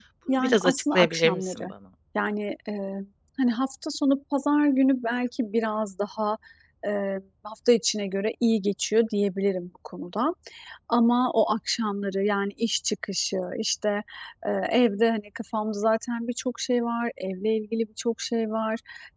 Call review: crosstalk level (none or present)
present